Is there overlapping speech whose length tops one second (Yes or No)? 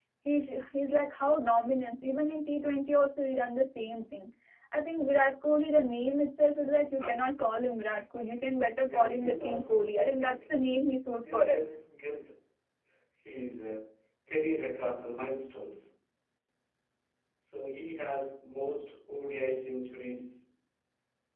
Yes